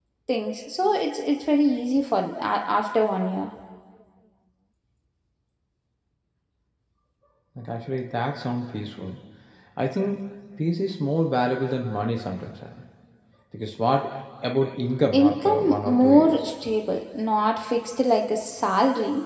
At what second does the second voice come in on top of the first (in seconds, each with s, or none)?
15.1 s